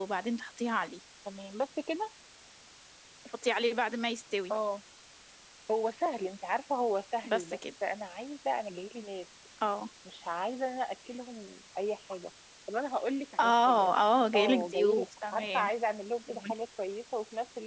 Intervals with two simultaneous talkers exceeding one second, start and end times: 14.3-15.7

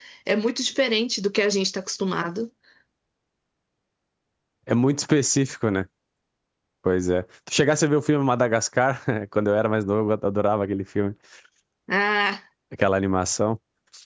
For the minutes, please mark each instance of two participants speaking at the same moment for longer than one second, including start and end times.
none

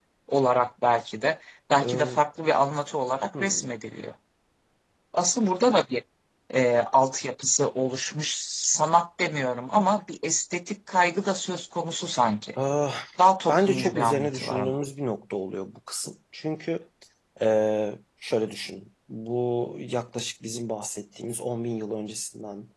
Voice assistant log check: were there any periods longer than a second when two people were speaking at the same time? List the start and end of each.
13.5-14.8

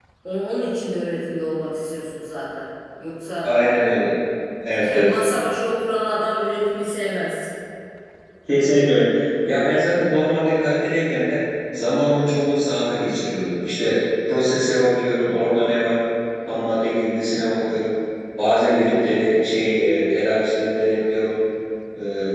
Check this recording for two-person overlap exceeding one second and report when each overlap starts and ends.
none

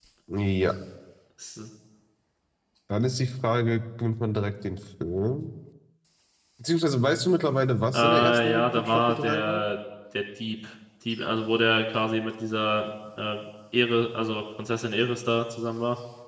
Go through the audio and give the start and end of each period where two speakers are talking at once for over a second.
7.9-9.6

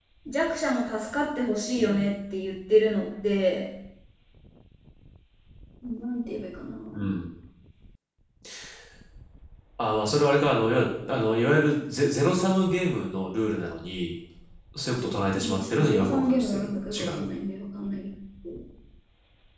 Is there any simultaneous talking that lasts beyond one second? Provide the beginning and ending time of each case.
15.3-17.2

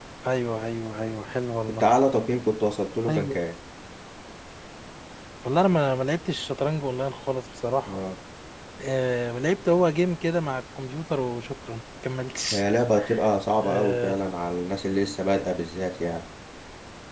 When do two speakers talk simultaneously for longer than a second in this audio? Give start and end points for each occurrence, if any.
none

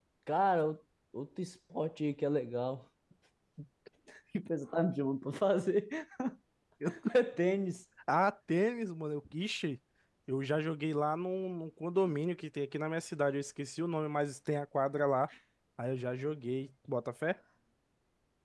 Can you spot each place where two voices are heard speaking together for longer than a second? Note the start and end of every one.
none

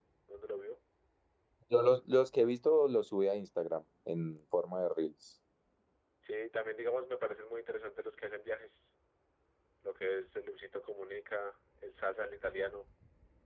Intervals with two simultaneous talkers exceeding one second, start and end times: none

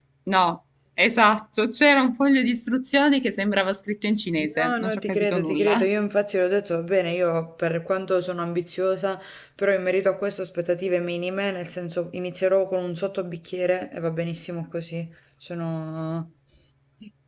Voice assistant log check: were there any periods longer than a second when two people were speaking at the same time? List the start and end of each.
4.6-5.9

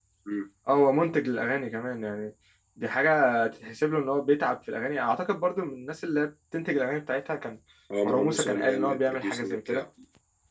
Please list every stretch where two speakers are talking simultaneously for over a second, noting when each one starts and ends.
8.0-9.8

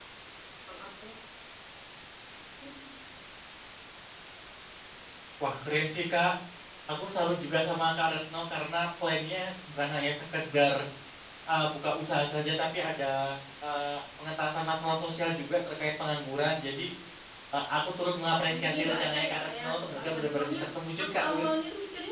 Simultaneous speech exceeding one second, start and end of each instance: 18.5-20.6

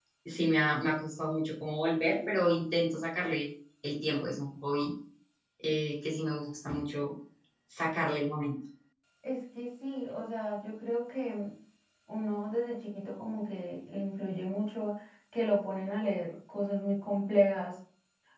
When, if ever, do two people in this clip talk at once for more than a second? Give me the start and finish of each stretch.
none

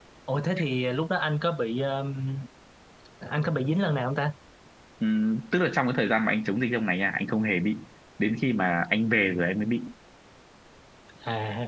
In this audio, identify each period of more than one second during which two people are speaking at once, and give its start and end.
none

